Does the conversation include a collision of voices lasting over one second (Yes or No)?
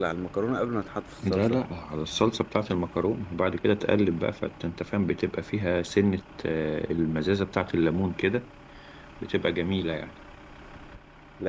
No